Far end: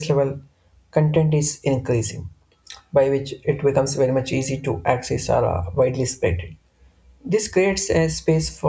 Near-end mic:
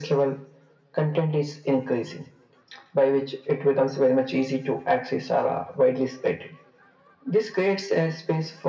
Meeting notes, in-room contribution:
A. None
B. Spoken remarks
A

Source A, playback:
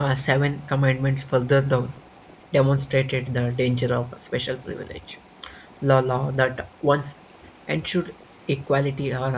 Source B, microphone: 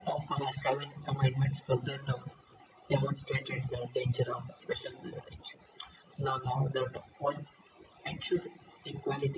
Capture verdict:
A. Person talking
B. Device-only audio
B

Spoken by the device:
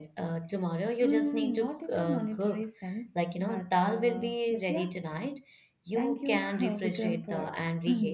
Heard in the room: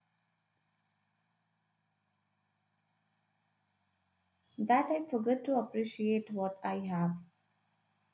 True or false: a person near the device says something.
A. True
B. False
A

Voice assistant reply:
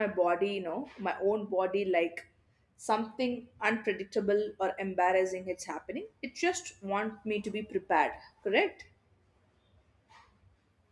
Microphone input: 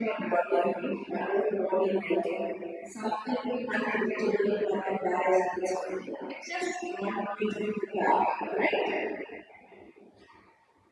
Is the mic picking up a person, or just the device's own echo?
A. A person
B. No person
B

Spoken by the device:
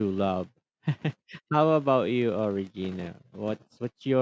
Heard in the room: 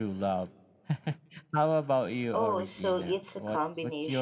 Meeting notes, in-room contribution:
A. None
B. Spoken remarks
B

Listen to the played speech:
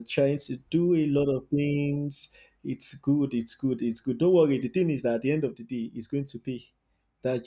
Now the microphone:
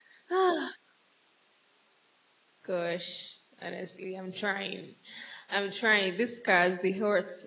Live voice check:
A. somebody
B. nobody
A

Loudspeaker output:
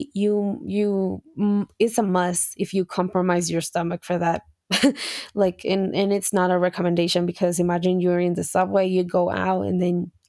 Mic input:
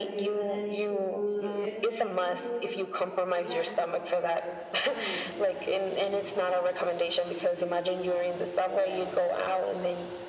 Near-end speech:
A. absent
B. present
B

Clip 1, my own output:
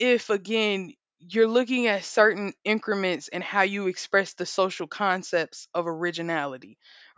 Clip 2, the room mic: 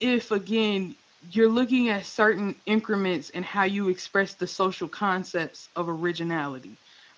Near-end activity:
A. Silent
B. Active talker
A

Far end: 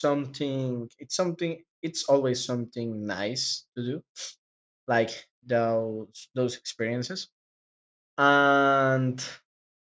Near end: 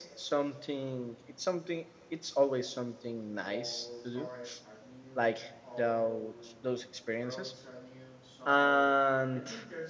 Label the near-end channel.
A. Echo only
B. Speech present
B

